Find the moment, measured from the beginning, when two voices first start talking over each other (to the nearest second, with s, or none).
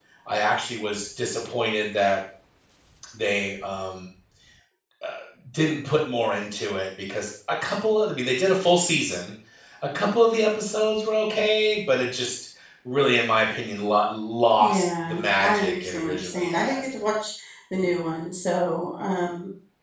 15 s